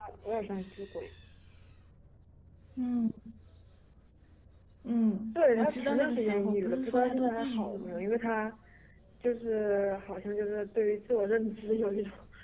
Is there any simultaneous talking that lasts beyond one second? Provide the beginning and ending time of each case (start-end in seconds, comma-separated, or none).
5.4-8.2